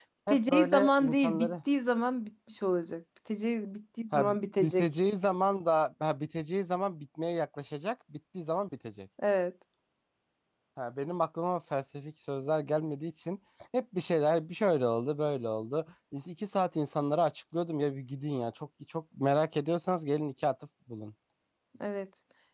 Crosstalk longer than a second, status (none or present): present